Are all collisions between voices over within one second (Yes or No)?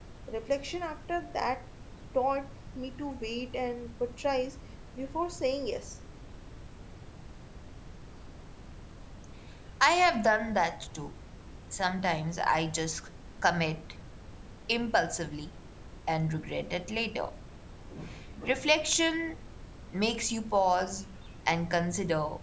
Yes